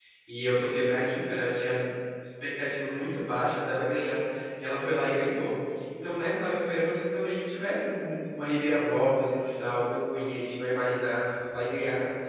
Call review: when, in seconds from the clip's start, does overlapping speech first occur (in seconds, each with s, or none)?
none